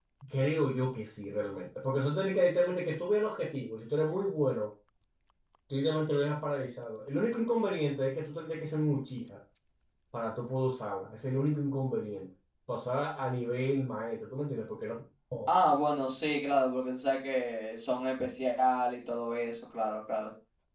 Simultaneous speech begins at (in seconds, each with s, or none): none